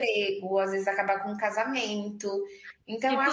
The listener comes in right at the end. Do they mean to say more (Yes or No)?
Yes